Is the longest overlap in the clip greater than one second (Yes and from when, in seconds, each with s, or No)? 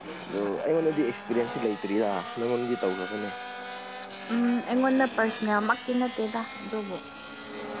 No